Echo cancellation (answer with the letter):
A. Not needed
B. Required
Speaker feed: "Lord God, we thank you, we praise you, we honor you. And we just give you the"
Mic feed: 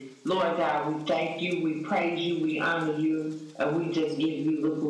B